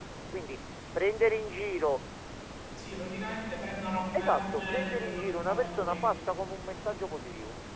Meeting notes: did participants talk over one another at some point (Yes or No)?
Yes